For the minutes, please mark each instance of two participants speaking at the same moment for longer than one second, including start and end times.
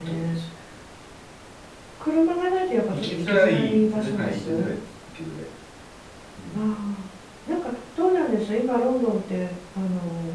2.9-4.7

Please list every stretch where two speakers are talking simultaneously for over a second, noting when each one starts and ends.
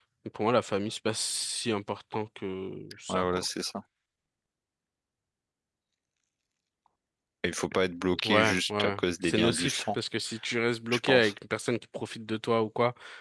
8.2-9.8

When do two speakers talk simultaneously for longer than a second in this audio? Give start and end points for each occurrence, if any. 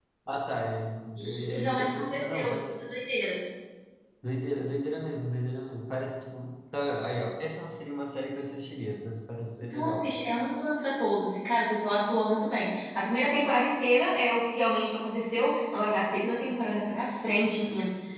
1.2-2.6

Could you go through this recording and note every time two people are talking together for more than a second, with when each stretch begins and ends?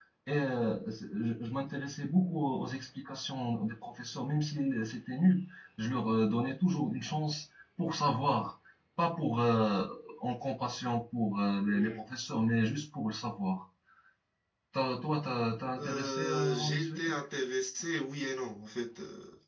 15.8-17.2

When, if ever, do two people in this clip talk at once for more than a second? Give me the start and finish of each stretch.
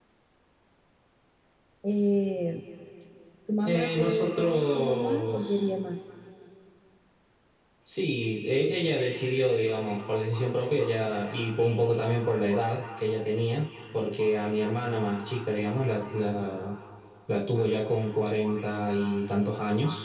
3.6-5.7

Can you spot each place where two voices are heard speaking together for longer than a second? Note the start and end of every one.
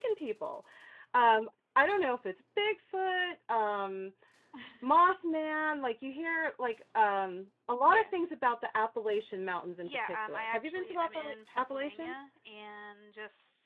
9.8-12.2

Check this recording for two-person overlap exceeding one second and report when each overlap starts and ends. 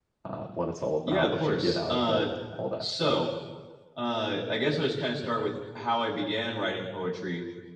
1.0-2.2

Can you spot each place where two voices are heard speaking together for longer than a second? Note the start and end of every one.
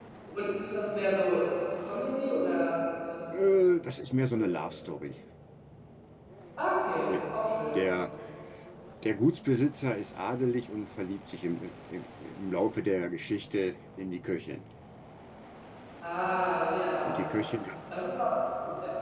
none

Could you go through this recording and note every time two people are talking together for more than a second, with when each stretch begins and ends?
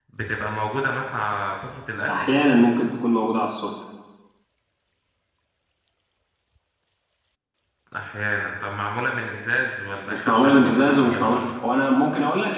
10.1-11.5

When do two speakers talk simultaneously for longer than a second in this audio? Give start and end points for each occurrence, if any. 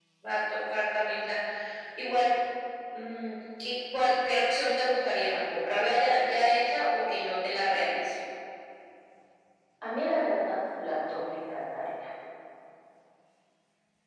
none

